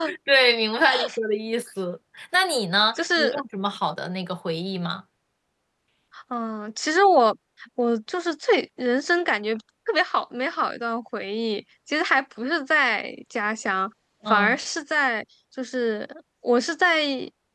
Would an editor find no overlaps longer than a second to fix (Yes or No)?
Yes